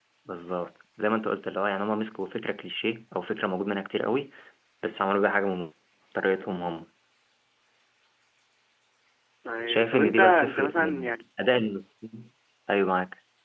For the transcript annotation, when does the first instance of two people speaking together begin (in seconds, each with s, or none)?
9.7 s